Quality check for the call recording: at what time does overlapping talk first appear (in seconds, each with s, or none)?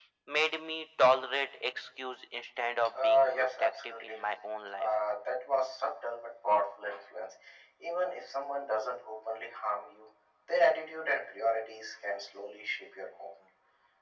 2.9 s